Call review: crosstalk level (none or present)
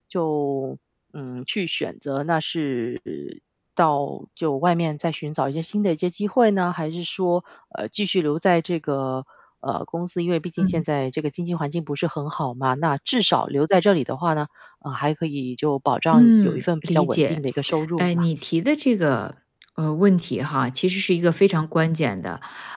present